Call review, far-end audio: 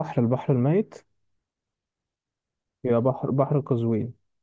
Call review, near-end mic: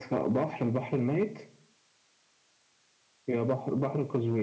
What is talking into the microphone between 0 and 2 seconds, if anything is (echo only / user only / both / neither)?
echo only